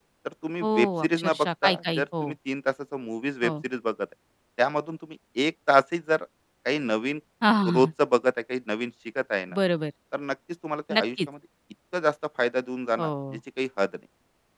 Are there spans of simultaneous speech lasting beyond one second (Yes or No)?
Yes